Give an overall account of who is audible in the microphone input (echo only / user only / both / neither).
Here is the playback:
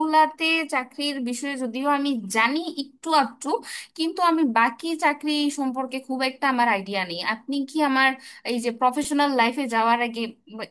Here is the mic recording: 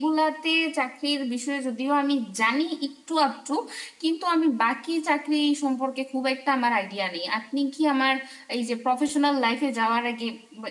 echo only